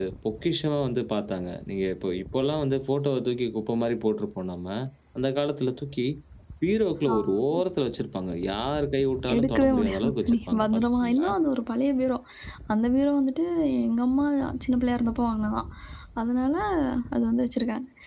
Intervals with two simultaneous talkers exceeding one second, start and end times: 9.3-11.3

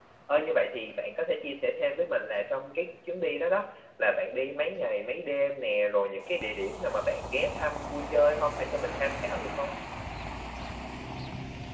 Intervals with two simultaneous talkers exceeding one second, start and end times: none

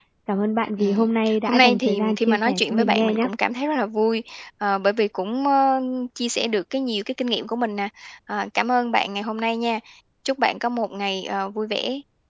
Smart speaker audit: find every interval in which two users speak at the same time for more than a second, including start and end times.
1.4-3.3

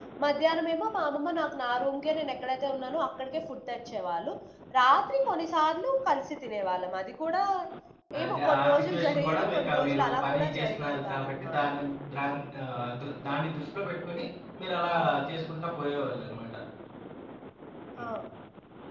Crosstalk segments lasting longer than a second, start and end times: 8.2-11.6

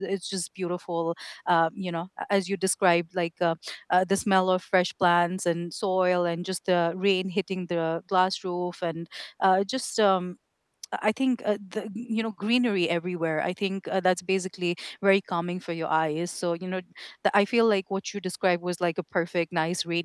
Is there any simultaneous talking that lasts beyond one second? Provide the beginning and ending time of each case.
none

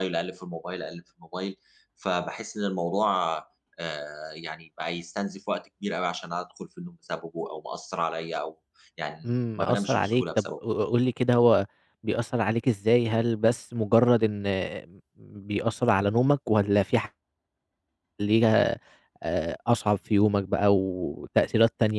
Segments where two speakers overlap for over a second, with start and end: 9.2-10.4

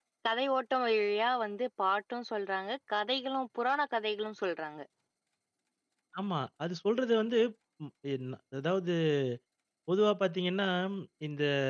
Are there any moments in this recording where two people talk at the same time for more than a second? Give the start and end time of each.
none

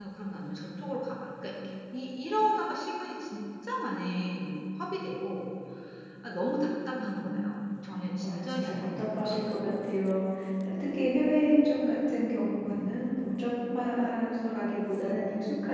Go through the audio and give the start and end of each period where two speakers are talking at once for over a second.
8.2-9.5

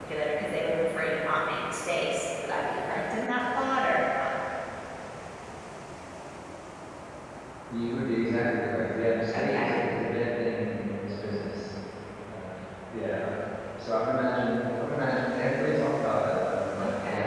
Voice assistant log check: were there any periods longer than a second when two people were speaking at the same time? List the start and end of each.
none

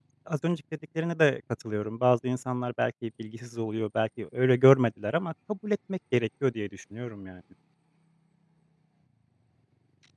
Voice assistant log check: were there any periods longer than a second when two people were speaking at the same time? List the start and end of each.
none

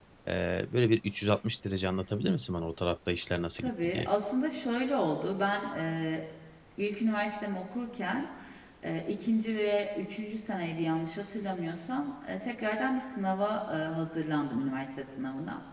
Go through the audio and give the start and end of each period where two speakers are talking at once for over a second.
none

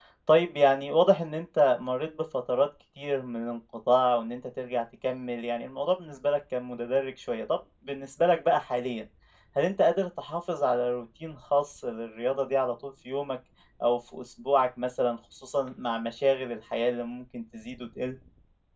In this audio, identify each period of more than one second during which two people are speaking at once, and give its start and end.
none

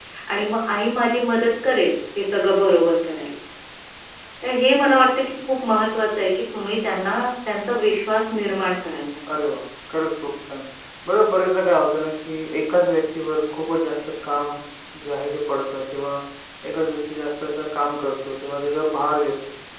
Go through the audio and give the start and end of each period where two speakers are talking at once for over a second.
none

